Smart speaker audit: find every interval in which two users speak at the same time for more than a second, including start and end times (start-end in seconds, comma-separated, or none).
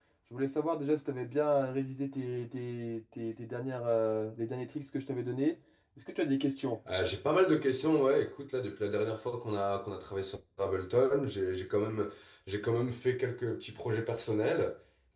none